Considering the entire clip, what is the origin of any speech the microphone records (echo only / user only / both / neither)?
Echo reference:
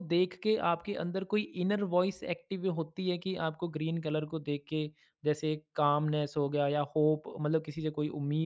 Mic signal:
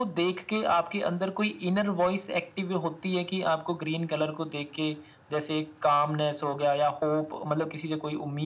echo only